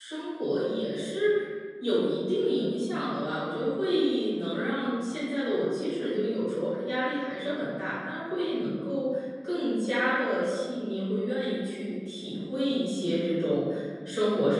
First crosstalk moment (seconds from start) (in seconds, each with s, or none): none